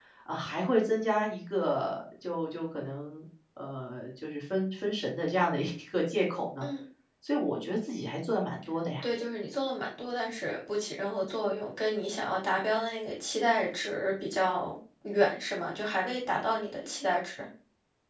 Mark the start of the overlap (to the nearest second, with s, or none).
none